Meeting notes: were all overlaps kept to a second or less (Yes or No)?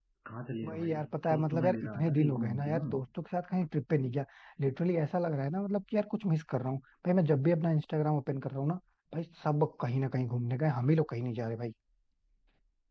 No